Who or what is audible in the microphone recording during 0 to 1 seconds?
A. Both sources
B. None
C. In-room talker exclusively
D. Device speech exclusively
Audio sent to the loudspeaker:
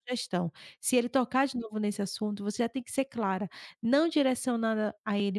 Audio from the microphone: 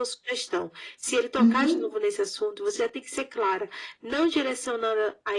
D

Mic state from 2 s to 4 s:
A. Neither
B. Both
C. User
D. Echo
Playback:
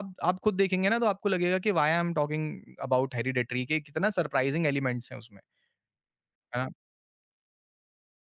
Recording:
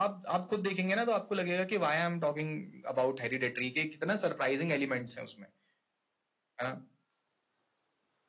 D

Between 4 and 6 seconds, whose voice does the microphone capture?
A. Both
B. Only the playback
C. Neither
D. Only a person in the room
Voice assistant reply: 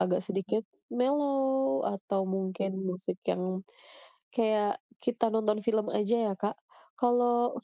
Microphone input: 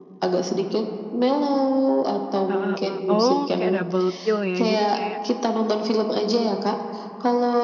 A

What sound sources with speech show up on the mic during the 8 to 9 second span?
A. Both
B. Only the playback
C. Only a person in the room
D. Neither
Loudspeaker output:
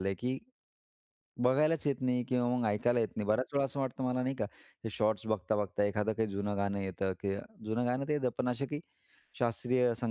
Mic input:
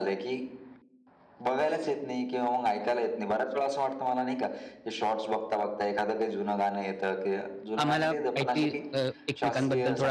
A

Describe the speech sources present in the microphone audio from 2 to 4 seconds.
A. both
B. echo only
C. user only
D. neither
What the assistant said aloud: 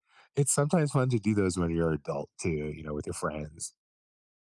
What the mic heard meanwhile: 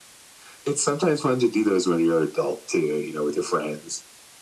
B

